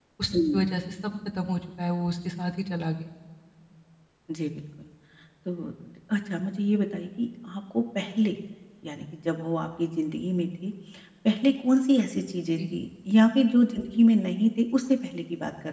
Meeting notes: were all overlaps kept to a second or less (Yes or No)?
Yes